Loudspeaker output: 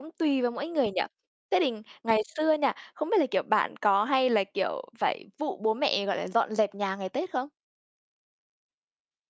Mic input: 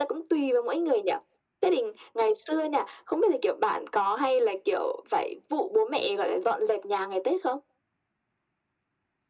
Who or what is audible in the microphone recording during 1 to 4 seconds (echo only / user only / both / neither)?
echo only